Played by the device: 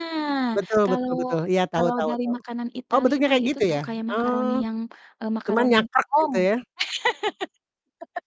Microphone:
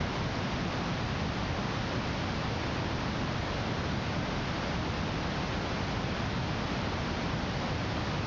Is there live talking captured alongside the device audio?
No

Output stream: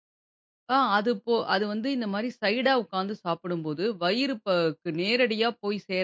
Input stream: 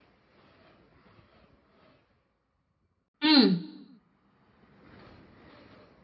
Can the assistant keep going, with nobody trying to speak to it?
No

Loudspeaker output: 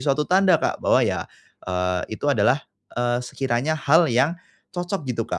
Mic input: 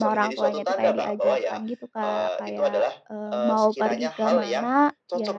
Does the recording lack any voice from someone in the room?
No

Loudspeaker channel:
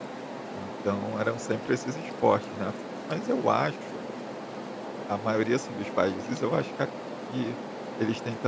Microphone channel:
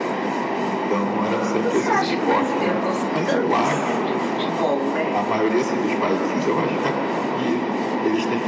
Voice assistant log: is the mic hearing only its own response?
No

